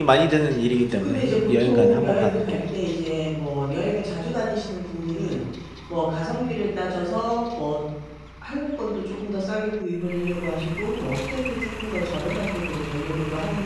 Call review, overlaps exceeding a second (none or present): present